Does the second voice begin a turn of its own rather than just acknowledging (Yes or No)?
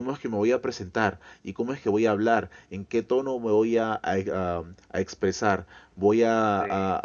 No